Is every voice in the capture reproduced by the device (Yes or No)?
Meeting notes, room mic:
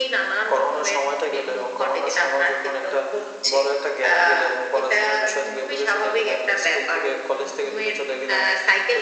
Yes